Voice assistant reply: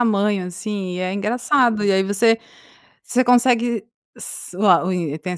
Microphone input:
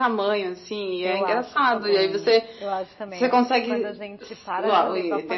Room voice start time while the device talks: 1 s

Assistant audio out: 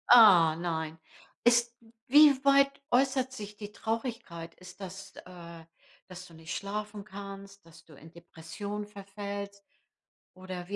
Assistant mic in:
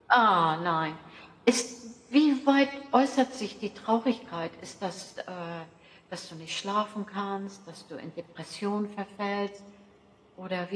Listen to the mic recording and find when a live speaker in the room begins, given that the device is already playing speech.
none

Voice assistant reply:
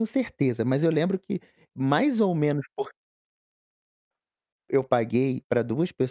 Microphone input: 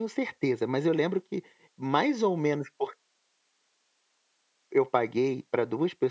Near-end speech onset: none

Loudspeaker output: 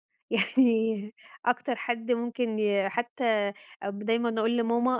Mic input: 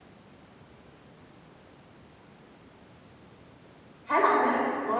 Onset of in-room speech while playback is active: 4 s

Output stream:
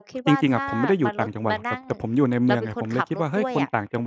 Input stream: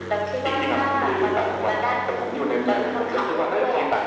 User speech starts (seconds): none

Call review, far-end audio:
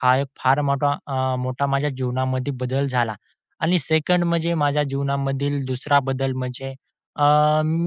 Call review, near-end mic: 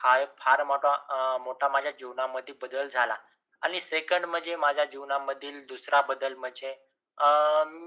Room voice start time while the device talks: none

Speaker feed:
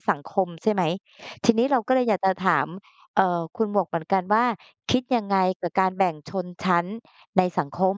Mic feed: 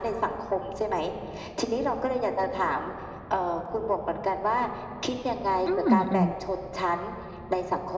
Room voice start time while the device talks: 6 s

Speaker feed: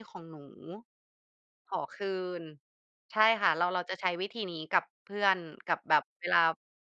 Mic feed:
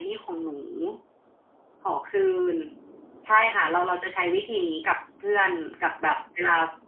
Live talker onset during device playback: none

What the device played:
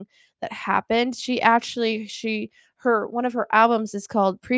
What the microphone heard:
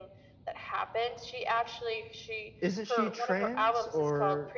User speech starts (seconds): 3 s

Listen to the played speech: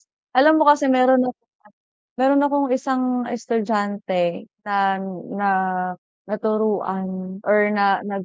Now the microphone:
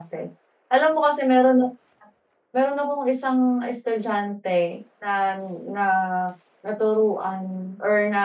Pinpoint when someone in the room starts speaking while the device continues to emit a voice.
none

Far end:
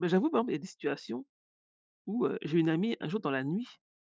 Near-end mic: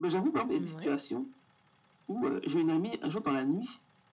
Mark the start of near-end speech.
1 s

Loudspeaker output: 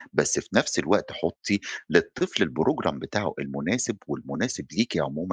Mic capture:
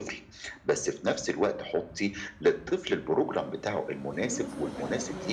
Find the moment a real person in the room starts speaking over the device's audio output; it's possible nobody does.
4 s

